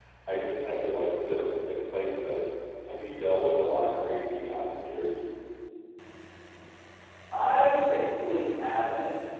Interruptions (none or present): none